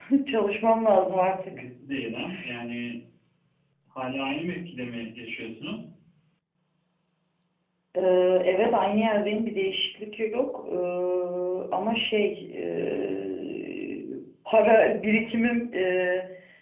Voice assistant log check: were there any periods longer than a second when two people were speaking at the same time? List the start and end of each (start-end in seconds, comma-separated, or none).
none